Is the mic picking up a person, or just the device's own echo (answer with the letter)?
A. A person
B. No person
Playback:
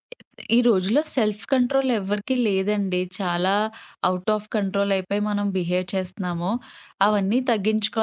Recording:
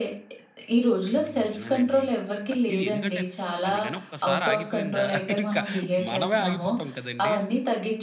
A